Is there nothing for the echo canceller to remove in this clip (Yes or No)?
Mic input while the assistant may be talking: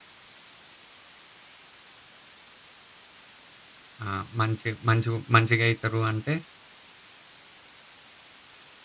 Yes